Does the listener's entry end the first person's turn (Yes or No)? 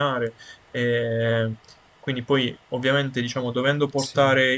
No